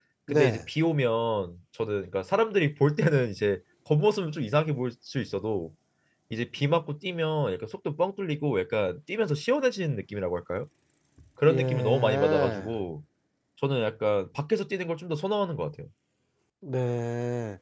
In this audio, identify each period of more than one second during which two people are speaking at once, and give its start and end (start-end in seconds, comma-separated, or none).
11.4-12.7